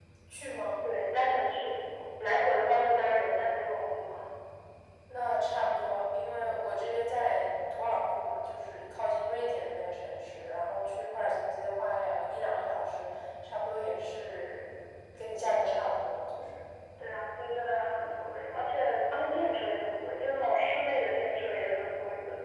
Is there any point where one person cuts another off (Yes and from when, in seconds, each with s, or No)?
No